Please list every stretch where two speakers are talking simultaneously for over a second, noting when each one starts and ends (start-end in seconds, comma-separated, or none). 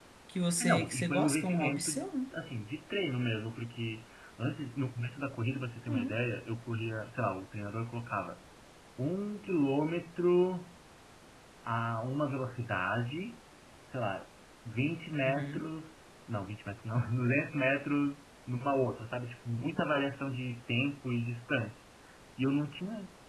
0.6-1.9